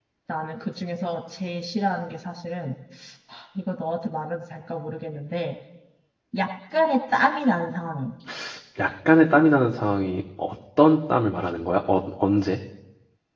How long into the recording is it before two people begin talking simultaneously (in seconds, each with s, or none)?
none